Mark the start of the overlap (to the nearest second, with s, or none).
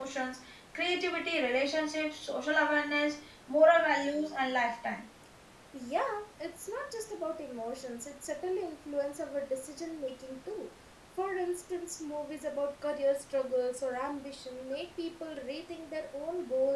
none